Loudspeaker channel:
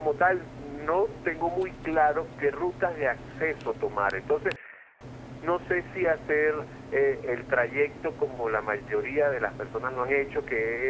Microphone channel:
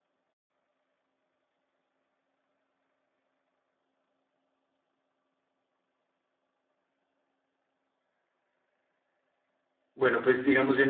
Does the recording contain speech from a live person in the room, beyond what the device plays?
Yes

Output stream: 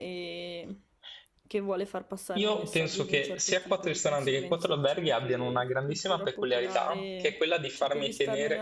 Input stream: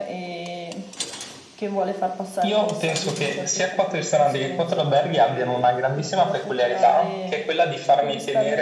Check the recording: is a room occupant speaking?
No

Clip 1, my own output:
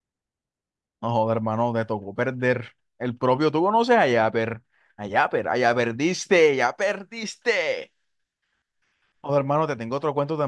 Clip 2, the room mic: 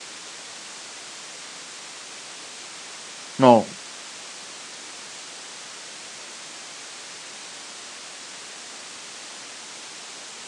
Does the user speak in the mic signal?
Yes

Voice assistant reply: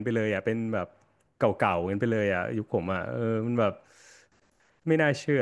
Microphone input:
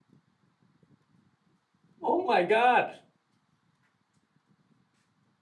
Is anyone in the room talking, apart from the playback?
Yes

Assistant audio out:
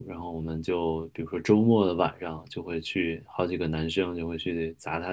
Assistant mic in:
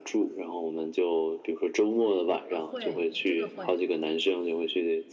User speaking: Yes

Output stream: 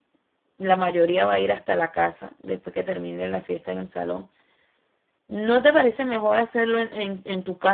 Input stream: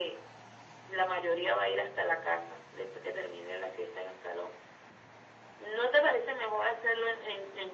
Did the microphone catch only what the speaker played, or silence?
Yes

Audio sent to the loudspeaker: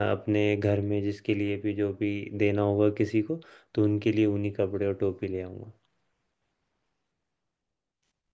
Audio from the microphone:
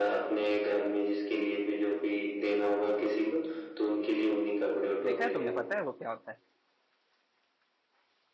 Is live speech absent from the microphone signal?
No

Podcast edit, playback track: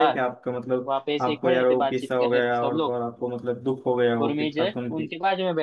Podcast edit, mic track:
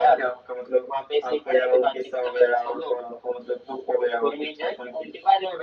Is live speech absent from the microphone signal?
Yes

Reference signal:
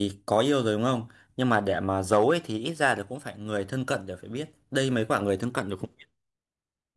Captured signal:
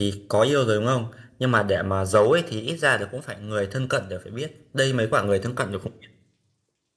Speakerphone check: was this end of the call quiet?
Yes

